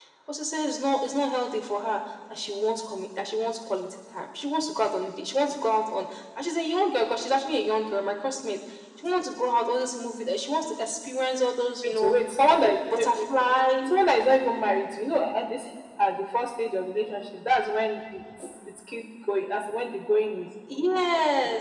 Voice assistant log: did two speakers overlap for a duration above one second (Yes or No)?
No